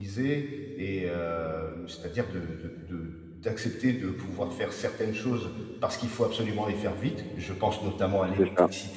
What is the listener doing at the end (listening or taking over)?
listening